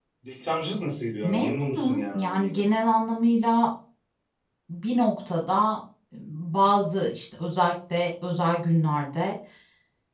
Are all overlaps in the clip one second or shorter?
No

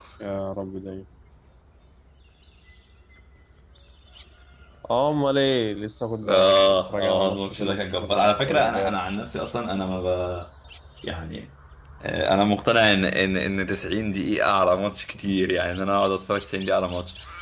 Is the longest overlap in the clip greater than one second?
Yes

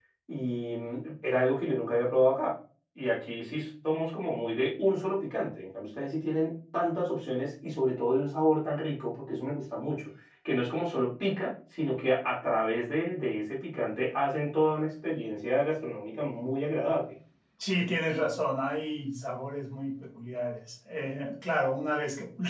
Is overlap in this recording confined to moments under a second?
Yes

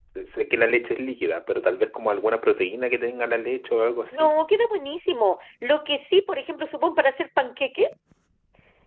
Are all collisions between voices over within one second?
Yes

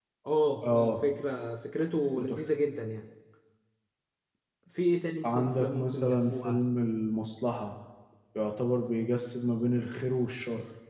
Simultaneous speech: Yes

